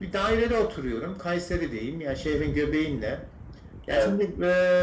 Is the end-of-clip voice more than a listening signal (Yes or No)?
No